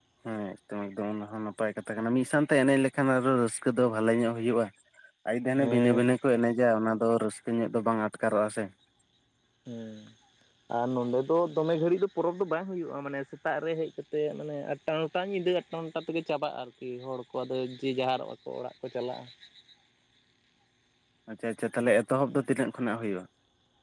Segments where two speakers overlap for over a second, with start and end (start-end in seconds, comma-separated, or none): none